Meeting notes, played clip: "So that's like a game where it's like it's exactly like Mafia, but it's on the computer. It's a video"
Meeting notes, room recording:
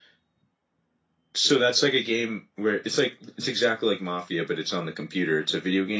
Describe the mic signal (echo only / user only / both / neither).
echo only